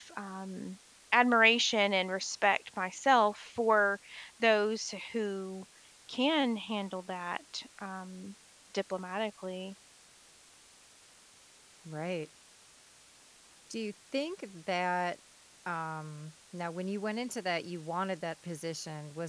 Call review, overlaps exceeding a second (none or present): none